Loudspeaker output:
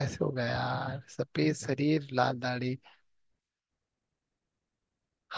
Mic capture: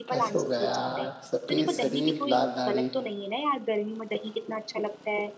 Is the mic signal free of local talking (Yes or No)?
No